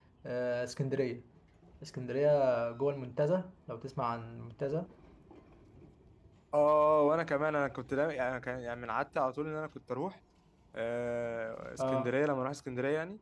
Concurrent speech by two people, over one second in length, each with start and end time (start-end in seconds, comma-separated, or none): none